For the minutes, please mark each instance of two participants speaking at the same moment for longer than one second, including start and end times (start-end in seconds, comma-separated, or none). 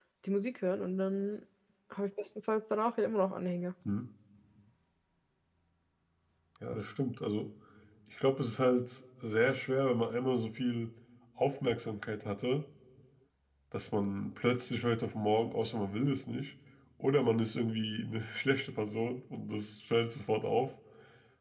none